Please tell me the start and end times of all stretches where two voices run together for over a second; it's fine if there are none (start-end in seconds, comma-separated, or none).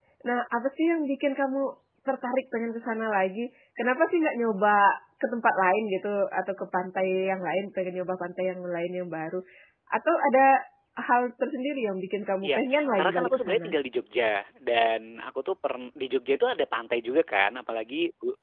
12.4-13.7